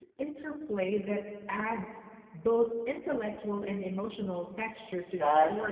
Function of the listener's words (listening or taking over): taking over